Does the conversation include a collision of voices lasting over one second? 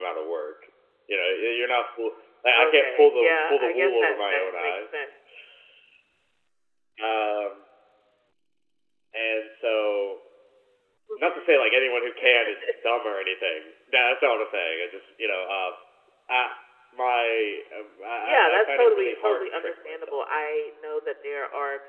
Yes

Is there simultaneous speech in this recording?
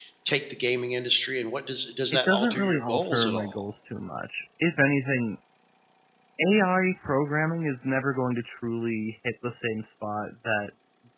Yes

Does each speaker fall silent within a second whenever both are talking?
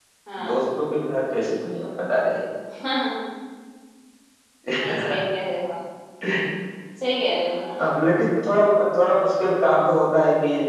Yes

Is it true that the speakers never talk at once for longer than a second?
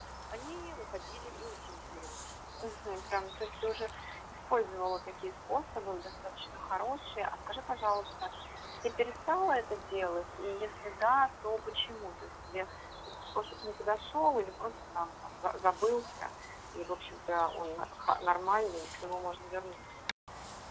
Yes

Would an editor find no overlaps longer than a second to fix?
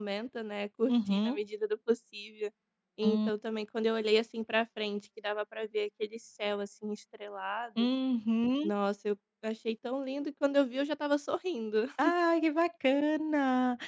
Yes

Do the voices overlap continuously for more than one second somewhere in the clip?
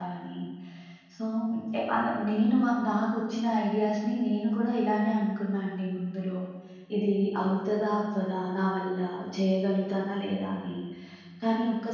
No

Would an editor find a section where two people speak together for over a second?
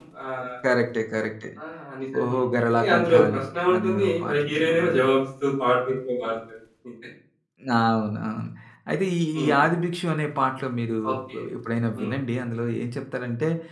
Yes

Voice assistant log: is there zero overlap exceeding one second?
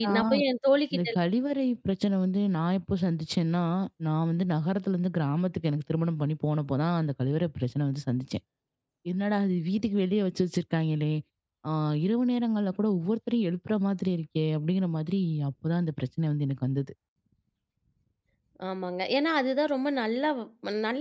Yes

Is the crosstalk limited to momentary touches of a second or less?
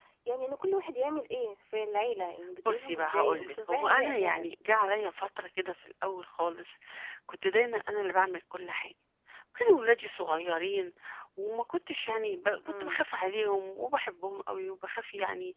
No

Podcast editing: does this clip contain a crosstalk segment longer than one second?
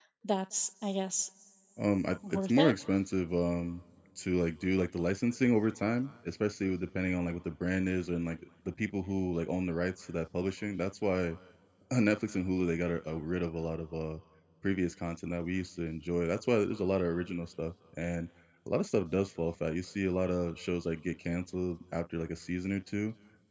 No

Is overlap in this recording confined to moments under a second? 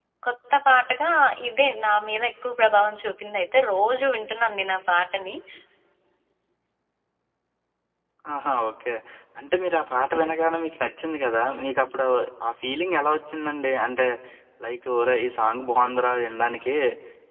Yes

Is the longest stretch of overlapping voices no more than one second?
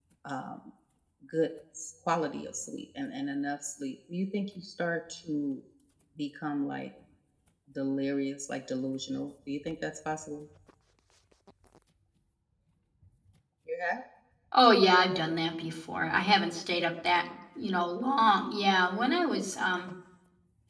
Yes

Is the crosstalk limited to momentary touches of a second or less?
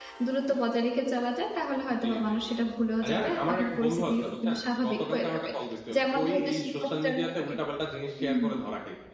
No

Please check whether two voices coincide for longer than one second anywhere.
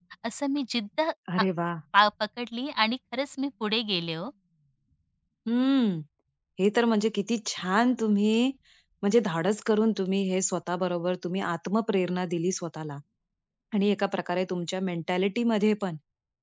No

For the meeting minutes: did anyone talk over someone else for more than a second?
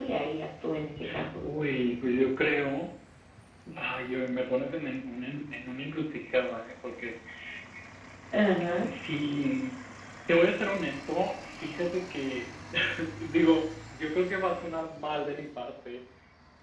No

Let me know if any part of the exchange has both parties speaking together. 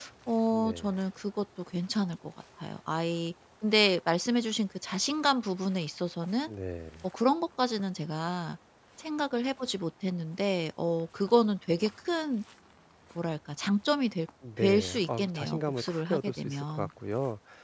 Yes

